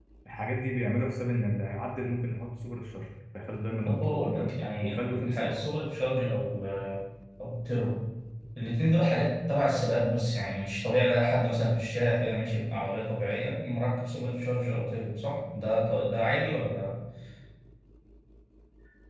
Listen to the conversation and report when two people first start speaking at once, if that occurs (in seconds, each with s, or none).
3.8 s